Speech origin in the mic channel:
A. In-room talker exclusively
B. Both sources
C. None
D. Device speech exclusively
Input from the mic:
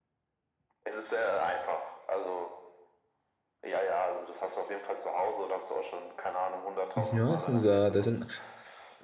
B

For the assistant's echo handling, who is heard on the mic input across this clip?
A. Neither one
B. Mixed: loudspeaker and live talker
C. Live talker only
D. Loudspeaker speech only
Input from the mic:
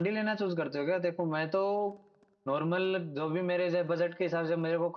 C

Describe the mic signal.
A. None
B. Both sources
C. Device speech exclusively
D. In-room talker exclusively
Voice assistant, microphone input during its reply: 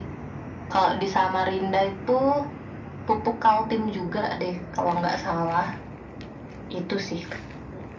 C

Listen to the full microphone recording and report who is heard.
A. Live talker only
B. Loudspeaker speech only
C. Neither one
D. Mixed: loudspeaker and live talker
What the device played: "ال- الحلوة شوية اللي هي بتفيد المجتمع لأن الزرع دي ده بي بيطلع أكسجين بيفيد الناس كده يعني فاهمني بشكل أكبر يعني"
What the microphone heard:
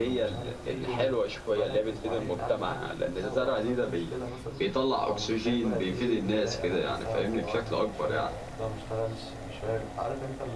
D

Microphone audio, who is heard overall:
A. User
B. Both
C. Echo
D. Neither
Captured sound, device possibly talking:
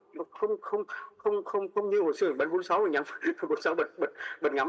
C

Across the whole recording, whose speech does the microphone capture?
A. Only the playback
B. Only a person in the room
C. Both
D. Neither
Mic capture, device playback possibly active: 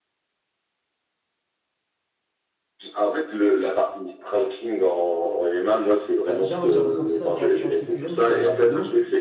C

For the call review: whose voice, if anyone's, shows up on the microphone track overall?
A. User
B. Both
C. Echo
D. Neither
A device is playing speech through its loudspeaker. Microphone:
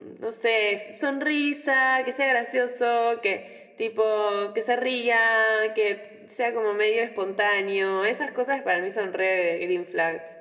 C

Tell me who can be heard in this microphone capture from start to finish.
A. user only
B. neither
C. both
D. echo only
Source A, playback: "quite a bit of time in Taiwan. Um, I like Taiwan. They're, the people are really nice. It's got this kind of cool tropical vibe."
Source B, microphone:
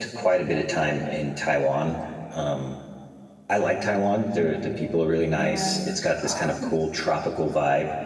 C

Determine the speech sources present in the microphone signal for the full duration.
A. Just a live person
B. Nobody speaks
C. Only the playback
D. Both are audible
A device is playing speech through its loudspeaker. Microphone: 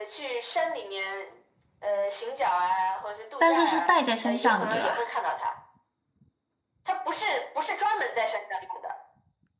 D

